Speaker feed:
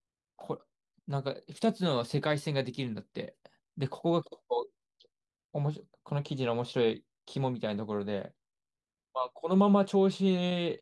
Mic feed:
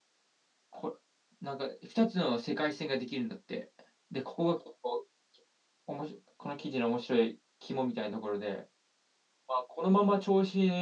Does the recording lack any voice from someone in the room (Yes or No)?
Yes